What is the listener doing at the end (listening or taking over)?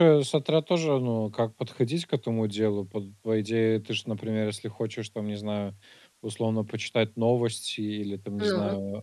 listening